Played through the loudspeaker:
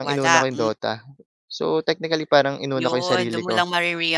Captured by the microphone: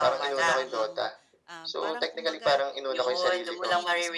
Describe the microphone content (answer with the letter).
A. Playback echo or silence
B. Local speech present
B